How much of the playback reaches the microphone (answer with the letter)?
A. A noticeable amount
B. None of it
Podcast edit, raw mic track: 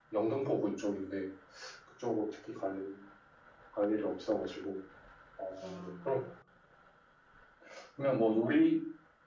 A